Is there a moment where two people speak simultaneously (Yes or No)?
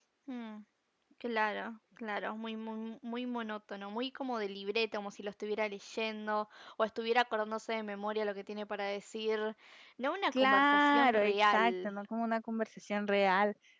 Yes